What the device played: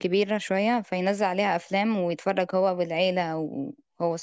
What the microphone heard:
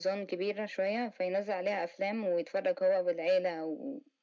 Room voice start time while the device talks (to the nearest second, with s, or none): none